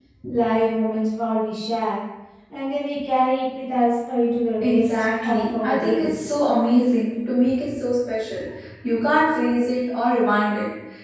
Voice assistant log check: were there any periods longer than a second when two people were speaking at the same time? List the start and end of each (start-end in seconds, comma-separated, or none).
4.6-6.1